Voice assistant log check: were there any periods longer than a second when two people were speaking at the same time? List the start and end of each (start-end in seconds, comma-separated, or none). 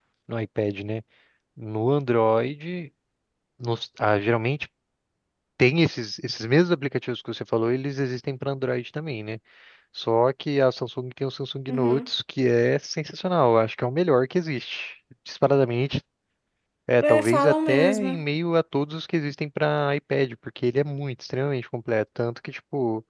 17.0-18.2